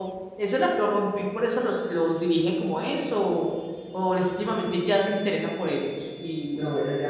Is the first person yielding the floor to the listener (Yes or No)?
Yes